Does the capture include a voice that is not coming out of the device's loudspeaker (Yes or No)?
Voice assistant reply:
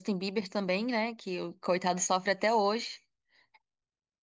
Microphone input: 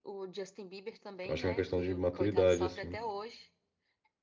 Yes